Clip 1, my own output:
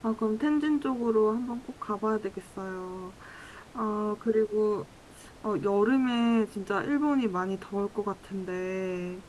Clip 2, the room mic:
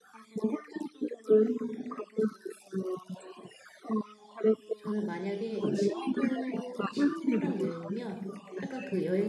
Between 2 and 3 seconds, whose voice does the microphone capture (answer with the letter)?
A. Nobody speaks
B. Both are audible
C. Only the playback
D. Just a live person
C